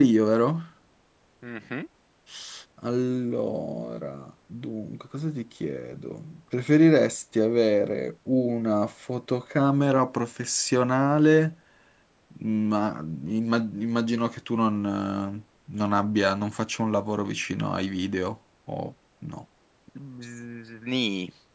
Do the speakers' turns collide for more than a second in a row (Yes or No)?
No